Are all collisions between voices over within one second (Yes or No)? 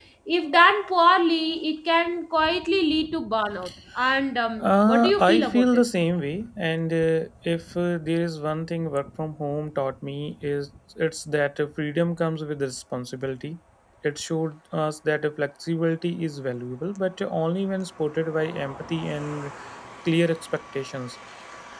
No